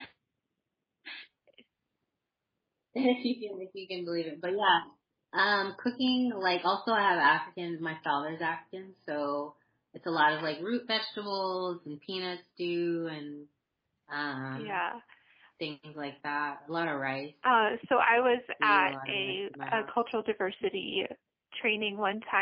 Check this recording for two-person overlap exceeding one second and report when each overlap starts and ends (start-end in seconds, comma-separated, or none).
18.6-19.9